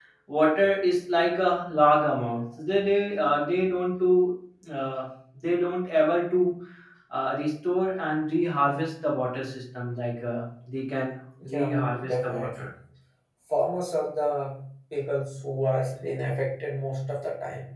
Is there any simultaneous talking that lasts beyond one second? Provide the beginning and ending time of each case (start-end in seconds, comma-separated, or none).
11.4-12.7